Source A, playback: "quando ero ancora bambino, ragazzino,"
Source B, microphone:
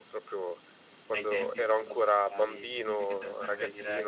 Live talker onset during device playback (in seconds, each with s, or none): 1.1 s